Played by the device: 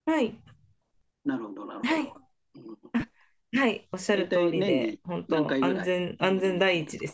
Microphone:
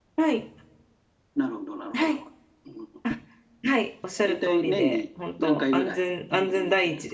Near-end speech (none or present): none